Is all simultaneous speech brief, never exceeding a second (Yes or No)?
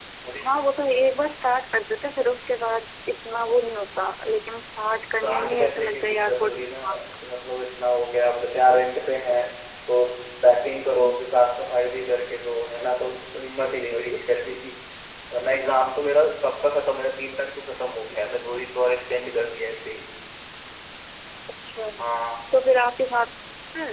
No